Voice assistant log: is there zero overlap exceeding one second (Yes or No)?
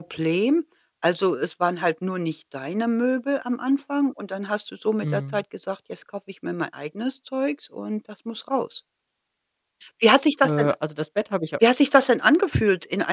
Yes